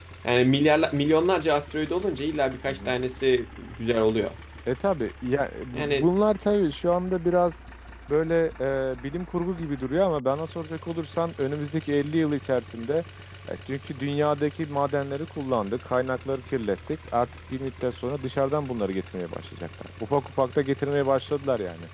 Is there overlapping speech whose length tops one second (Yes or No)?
No